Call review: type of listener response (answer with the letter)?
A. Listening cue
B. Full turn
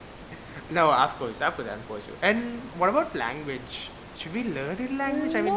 B